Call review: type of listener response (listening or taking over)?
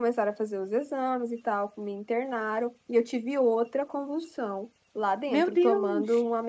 listening